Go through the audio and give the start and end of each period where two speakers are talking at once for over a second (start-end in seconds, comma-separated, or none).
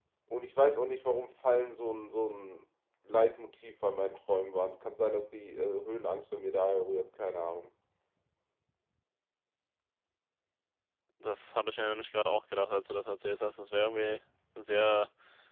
none